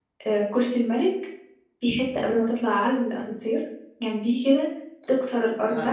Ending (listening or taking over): listening